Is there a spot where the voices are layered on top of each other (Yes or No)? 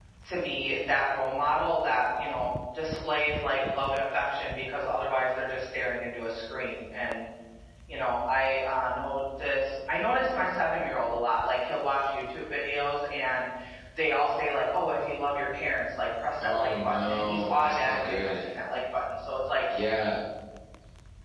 Yes